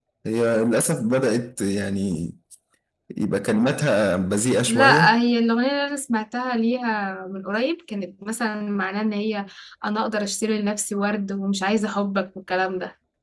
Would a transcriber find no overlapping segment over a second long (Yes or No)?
Yes